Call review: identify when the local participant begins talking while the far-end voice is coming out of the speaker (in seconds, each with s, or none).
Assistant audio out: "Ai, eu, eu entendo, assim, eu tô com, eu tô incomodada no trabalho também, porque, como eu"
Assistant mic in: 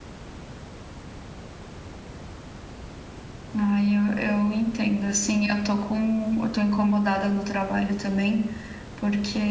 none